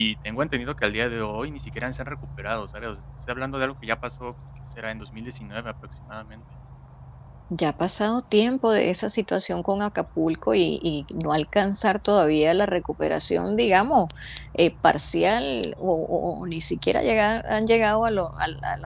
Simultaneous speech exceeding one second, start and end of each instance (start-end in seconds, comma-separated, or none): none